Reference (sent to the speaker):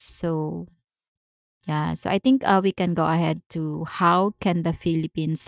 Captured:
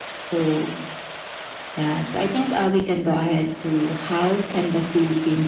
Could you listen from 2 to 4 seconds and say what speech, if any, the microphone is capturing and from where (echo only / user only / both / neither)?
echo only